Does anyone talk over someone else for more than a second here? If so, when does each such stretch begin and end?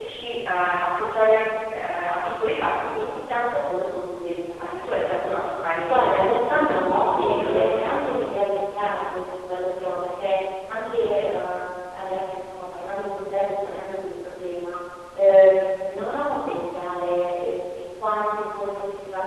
6.5-7.7

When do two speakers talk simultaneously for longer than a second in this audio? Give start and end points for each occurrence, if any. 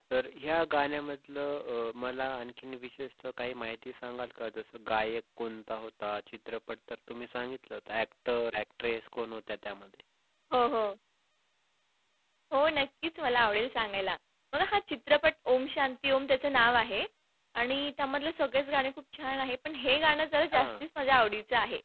none

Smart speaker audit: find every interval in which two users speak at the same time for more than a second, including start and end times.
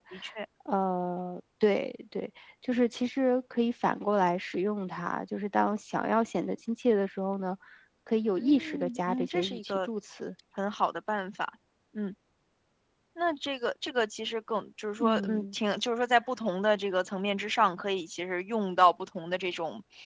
8.4-9.9

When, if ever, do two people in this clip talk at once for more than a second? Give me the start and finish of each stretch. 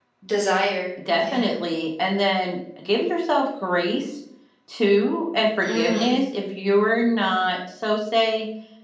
none

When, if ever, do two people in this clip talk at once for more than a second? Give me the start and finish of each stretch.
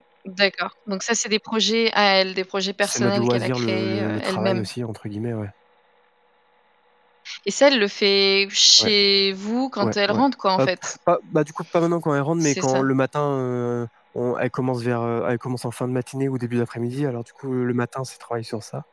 2.8-4.7

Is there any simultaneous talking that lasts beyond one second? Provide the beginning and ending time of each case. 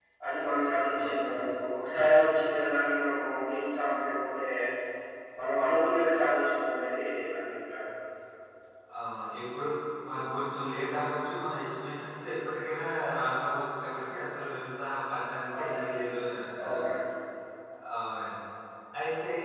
none

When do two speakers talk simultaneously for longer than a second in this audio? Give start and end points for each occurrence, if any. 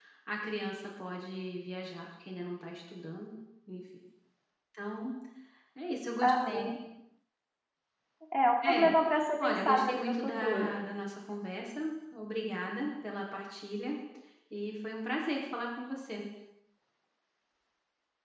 9.4-10.8

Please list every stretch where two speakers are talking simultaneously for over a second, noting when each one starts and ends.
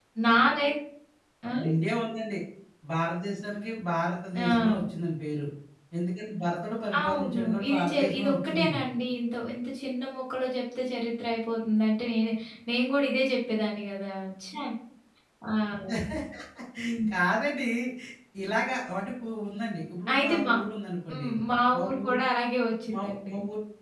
7.0-8.8

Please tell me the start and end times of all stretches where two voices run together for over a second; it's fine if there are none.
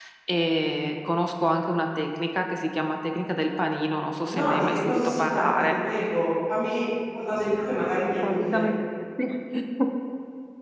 4.3-5.8

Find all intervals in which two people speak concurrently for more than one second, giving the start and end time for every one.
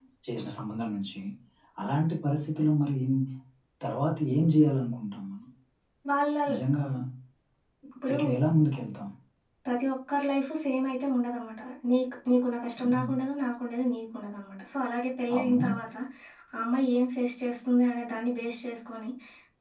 none

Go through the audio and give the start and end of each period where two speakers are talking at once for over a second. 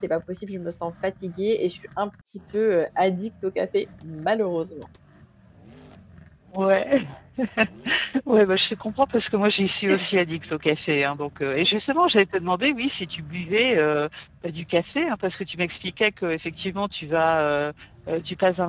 none

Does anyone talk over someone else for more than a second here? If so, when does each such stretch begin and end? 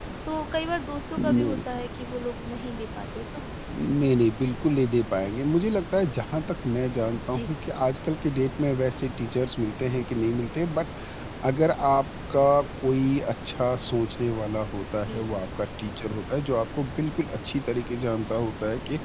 none

